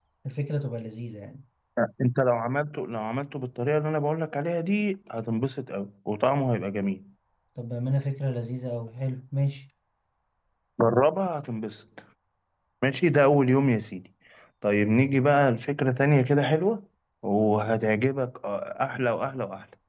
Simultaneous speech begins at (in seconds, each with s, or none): none